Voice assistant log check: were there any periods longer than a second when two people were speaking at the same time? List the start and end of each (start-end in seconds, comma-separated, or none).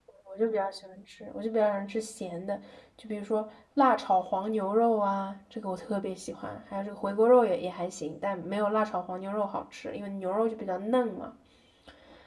none